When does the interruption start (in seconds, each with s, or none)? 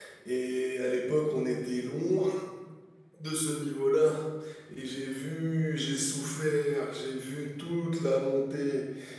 none